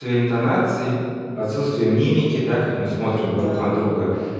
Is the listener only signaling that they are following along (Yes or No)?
Yes